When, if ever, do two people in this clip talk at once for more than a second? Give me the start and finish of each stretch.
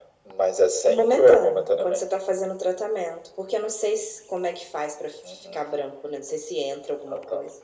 0.8-2.0

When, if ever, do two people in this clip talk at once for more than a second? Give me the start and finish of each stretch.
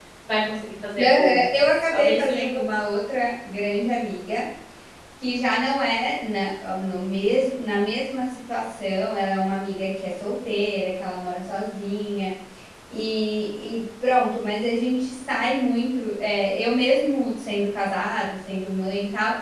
1.0-2.5

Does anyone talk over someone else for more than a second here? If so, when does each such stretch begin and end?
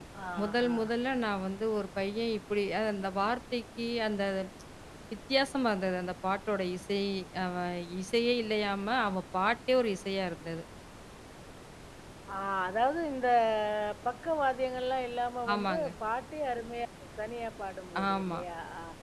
none

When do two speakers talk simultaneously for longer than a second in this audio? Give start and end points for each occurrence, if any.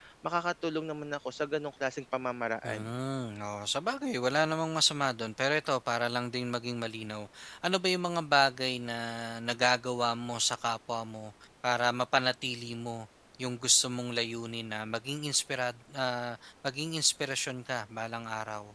none

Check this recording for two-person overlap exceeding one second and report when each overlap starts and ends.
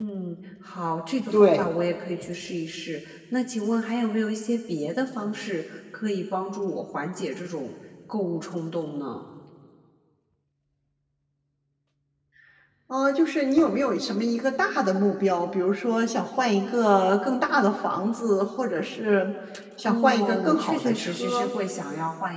19.8-21.5

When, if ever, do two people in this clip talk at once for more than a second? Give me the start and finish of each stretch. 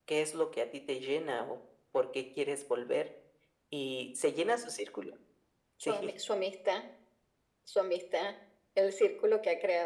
none

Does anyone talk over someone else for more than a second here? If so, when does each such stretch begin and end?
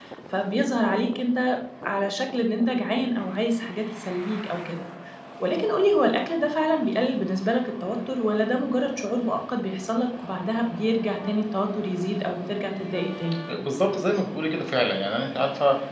none

